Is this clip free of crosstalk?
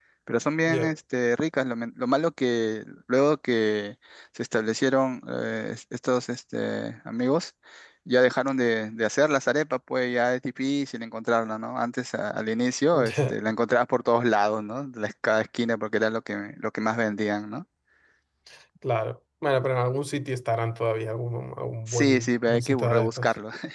No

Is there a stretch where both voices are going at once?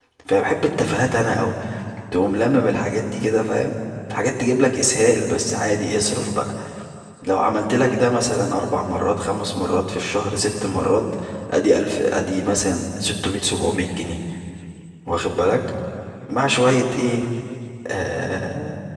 No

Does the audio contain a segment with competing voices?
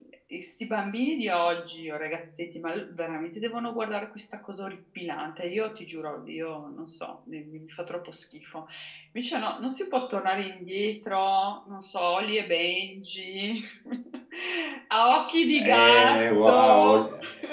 Yes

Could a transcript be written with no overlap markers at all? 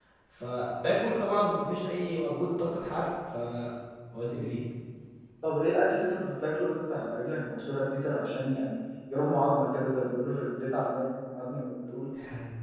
Yes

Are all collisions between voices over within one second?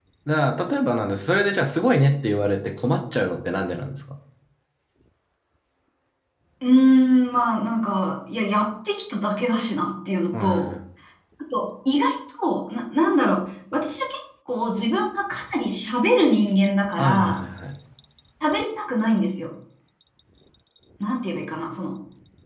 Yes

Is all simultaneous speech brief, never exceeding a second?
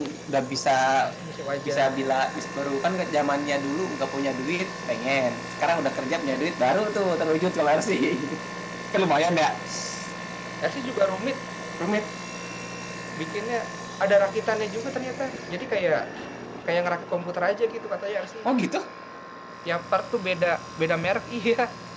Yes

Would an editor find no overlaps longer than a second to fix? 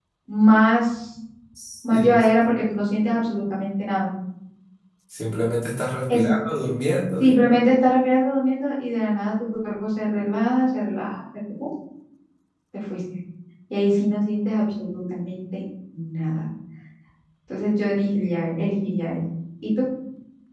Yes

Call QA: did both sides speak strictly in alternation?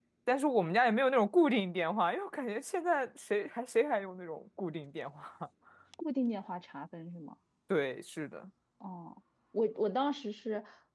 Yes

